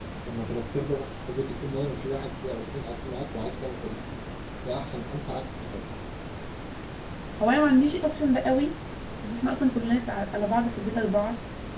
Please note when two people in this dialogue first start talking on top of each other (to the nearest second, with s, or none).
none